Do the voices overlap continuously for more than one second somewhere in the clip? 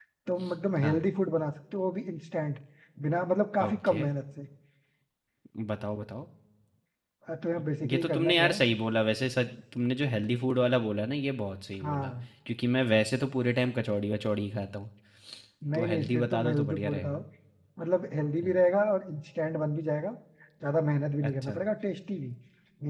Yes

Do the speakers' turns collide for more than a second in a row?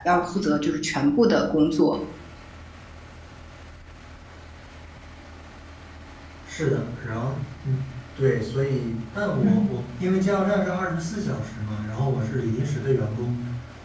No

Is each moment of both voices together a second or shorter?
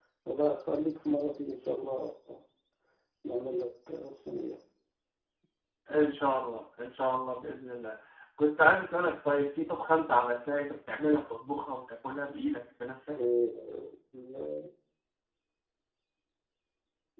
Yes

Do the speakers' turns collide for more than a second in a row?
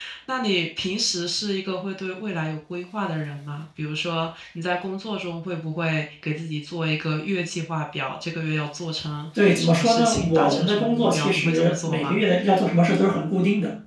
Yes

